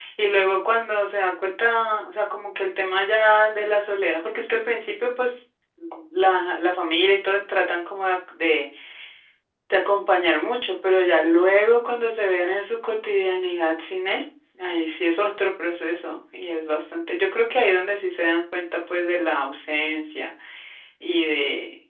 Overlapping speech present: No

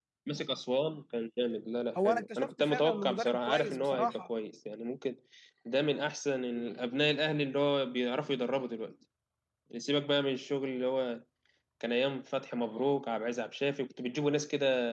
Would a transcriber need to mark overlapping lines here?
Yes, from 1.9 s

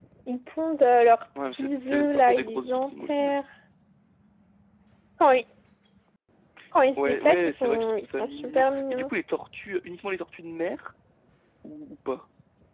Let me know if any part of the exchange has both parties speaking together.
Yes, from 1.4 s

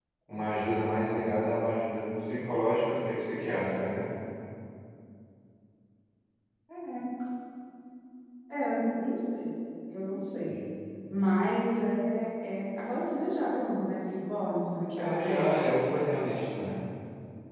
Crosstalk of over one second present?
No

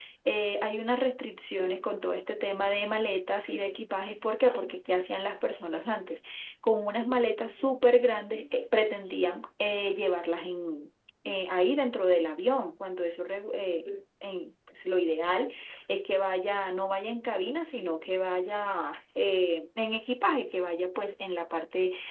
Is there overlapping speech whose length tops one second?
No

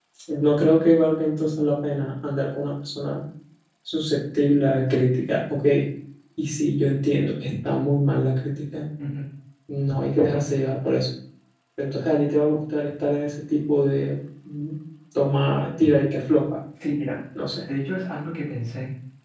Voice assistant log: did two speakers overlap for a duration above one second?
No

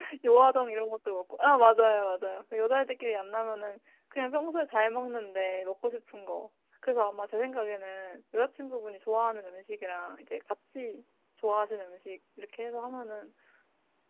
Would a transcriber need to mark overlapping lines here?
No

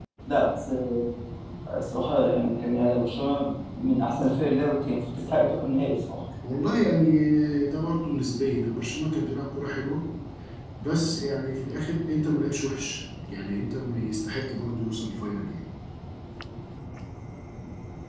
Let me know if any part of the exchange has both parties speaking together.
No

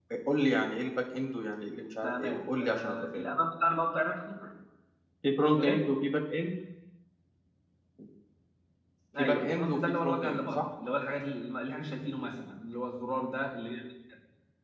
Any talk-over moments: Yes, from 2.0 s

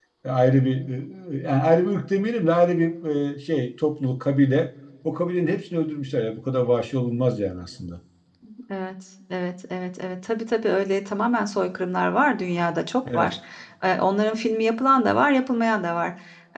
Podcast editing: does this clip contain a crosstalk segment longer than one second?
No

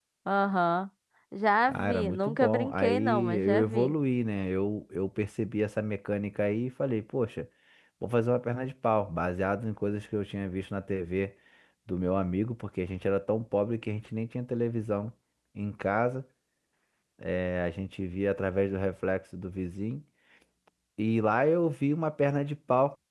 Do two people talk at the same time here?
Yes, from 1.7 s

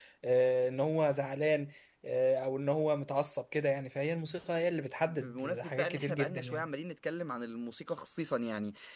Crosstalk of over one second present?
Yes, from 5.1 s

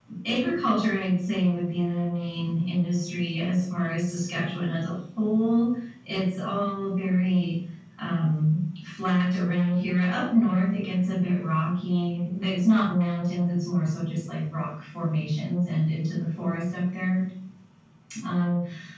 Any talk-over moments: No

